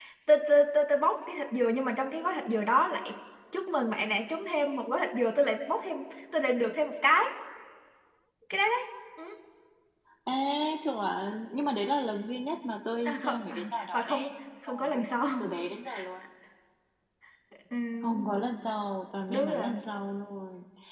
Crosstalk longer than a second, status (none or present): present